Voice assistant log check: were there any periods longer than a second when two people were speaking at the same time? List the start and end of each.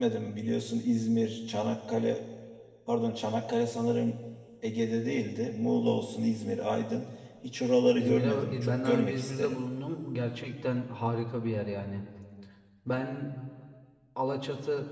8.0-9.6

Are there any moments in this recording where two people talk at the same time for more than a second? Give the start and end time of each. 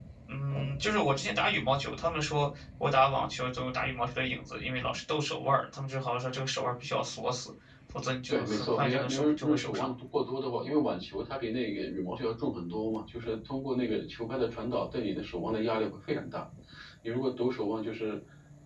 8.3-9.9

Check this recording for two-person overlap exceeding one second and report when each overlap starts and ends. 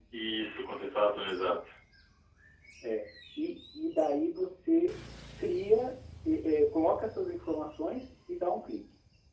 none

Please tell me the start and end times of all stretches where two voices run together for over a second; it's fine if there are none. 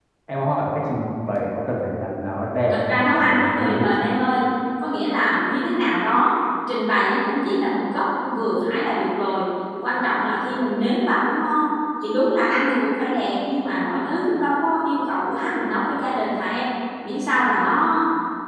2.7-3.9

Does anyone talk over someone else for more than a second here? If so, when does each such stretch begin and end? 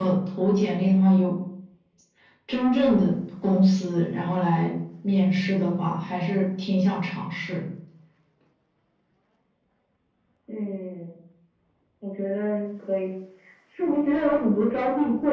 none

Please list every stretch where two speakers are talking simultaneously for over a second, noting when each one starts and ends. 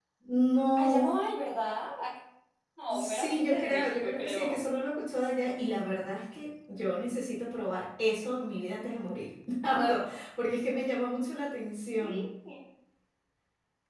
2.9-4.5

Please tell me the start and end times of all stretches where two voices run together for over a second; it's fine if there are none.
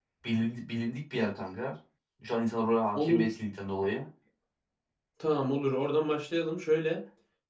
none

